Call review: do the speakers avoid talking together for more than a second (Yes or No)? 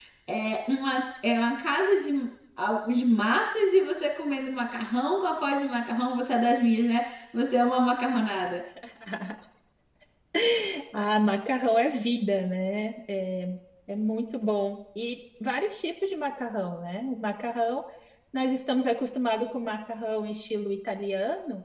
Yes